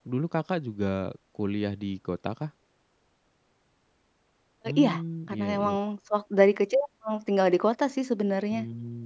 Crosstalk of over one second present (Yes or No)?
No